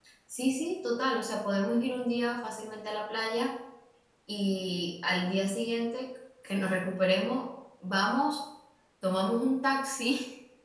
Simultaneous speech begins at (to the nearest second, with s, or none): none